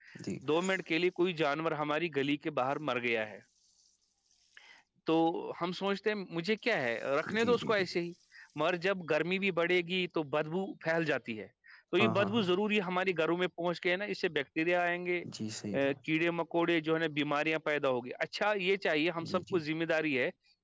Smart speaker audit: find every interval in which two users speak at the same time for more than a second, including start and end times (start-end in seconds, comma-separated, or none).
none